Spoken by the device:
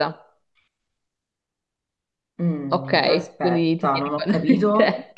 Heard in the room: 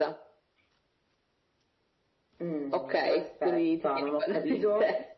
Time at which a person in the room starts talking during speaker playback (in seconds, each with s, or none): none